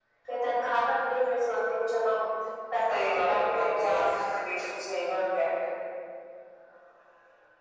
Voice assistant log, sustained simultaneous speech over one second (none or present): present